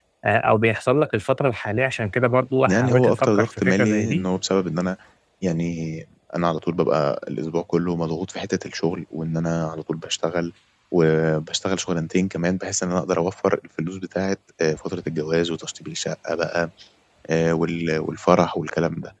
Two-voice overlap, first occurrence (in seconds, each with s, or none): 2.7 s